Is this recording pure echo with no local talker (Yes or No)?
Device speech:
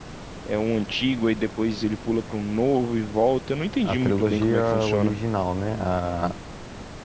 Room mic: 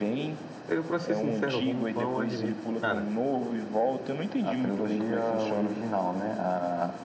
No